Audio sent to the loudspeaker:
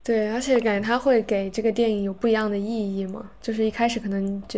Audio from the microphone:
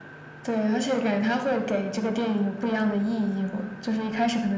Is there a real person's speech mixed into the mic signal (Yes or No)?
No